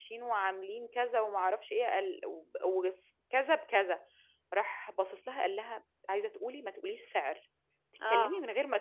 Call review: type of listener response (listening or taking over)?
listening